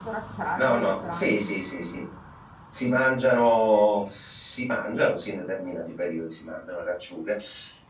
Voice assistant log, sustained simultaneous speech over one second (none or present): present